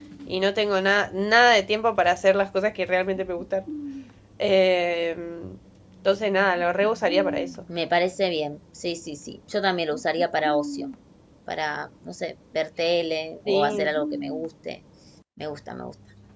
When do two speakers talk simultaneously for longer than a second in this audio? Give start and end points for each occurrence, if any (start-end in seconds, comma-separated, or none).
none